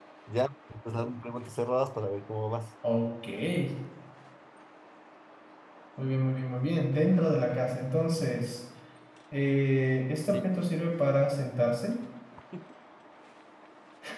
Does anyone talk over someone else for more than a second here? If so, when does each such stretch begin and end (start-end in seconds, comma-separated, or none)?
none